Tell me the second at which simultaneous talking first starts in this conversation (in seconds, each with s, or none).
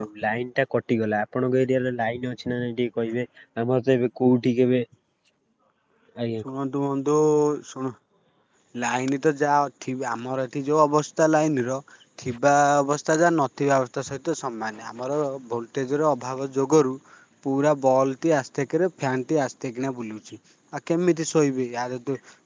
none